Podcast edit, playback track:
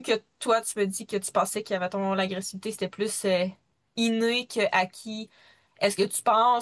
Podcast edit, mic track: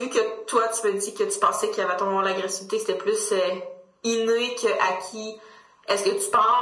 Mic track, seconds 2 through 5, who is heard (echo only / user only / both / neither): echo only